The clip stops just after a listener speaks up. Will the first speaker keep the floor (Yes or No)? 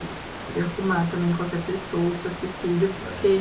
No